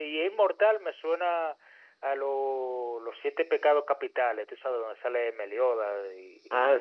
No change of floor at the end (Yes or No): No